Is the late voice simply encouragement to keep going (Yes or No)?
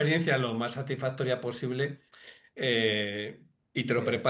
Yes